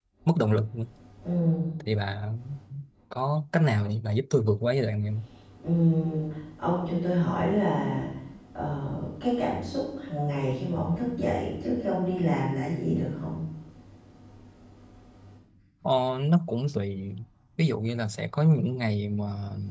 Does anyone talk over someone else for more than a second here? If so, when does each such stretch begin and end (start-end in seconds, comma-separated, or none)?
none